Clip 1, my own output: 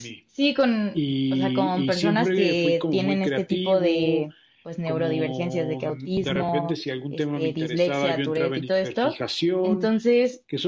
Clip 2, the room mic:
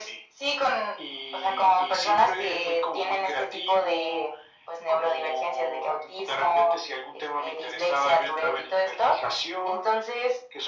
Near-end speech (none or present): none